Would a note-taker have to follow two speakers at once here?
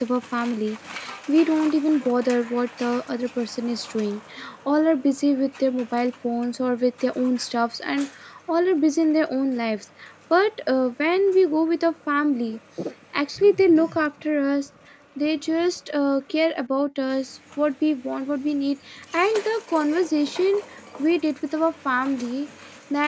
No

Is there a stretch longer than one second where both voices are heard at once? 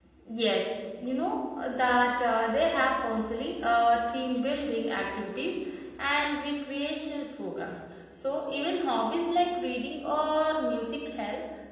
No

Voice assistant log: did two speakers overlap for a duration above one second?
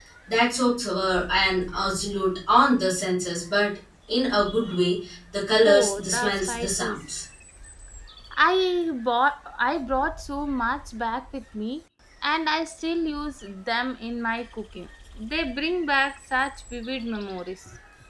Yes, from 5.6 s

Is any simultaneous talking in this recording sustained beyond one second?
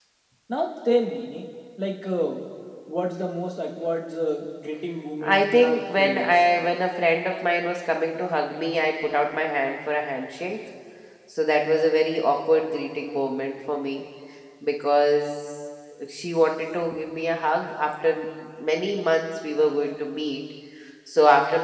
Yes, from 5.2 s

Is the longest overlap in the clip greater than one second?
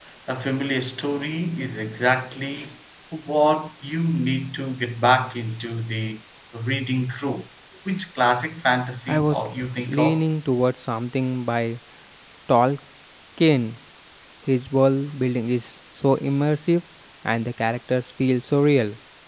No

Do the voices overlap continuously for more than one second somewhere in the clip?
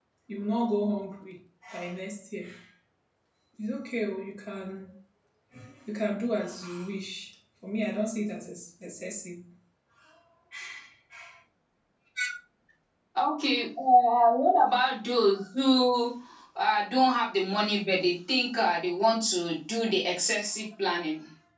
No

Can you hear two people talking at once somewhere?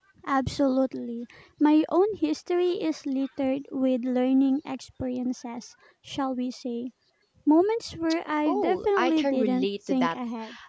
Yes, from 8.4 s

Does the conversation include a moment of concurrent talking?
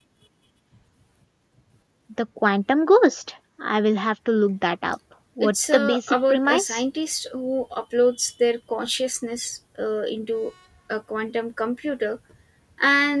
Yes, from 5.4 s

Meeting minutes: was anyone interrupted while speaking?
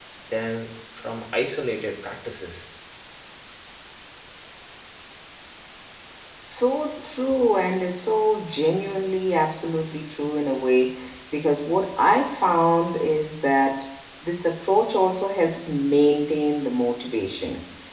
No

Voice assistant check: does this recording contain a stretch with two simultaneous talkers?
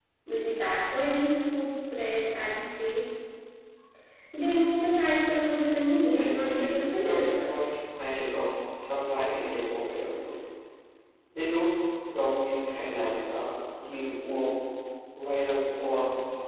Yes, from 6.1 s

